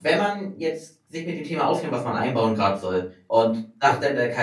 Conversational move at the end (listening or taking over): listening